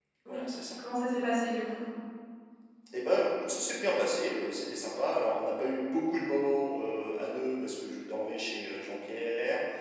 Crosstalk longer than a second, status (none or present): none